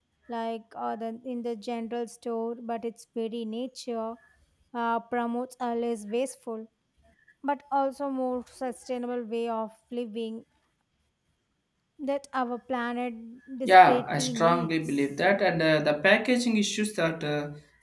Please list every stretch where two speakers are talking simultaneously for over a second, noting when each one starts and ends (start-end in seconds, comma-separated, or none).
13.6-15.0